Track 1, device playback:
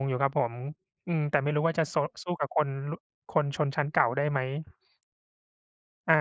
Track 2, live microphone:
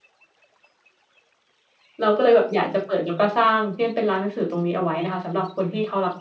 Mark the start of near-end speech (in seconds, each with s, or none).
2.0 s